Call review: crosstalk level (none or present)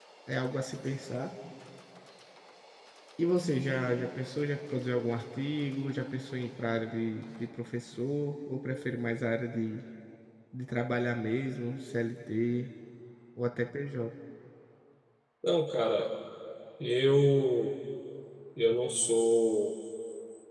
none